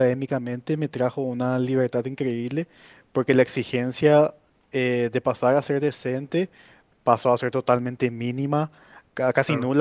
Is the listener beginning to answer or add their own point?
No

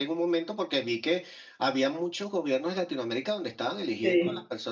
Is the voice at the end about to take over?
No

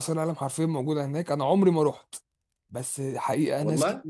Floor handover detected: No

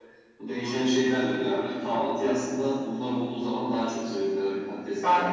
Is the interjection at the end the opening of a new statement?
No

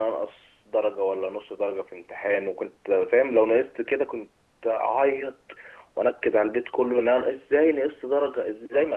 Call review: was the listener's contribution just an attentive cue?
No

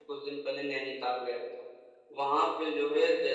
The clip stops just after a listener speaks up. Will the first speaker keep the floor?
Yes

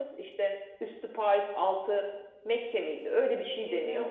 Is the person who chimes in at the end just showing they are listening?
No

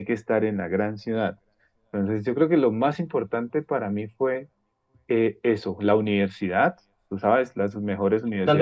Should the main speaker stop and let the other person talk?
No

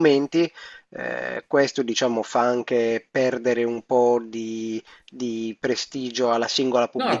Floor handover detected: Yes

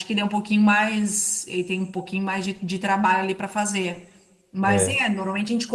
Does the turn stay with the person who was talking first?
Yes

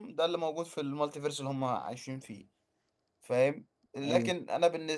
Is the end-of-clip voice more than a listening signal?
No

